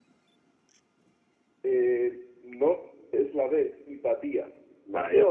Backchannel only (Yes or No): No